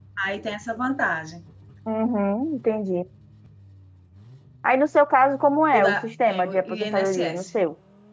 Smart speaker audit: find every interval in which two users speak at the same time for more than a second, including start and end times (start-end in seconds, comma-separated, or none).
5.8-7.4